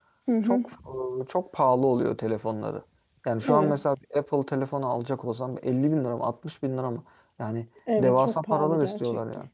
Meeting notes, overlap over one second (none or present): present